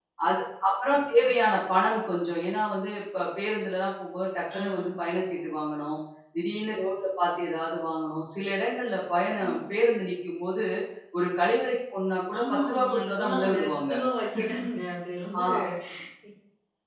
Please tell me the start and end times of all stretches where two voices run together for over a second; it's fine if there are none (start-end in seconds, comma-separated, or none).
12.4-13.9